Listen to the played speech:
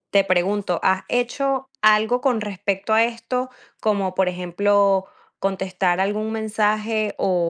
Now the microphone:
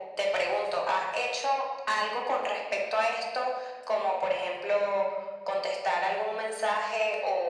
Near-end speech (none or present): none